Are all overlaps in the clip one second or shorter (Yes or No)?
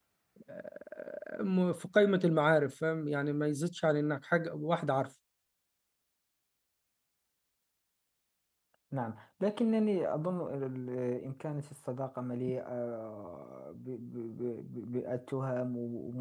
Yes